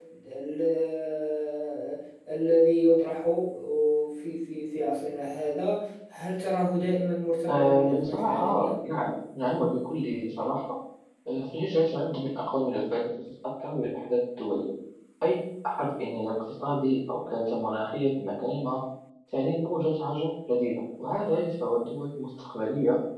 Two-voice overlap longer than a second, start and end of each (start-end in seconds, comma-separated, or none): 7.5-8.7